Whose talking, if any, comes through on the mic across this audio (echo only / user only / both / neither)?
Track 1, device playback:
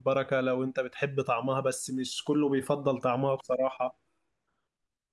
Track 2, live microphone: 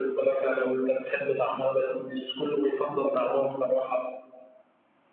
echo only